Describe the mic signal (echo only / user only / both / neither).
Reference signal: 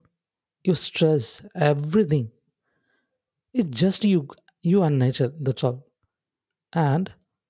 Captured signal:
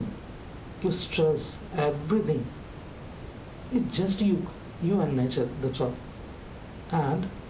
echo only